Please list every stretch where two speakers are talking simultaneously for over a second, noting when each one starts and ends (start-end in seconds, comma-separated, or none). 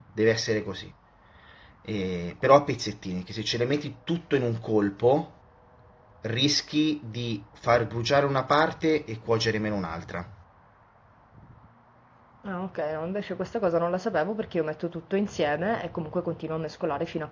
none